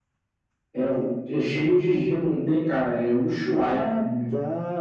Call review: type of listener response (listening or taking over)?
taking over